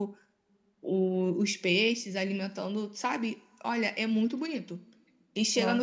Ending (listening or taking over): listening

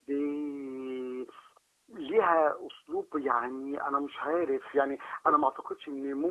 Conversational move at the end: listening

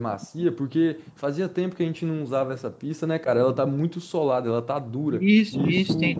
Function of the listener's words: taking over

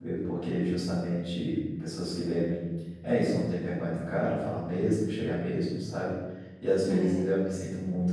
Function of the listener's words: listening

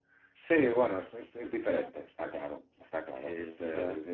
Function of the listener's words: listening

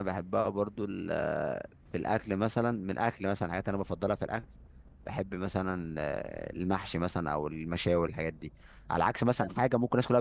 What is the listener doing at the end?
listening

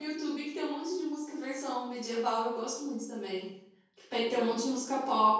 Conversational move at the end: listening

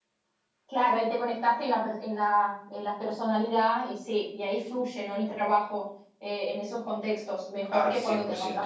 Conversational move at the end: listening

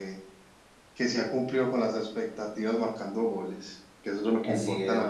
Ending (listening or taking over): taking over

